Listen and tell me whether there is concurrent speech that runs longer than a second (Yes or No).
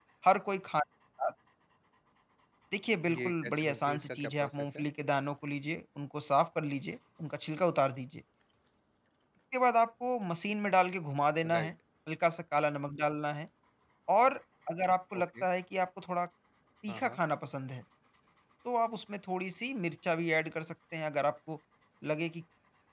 Yes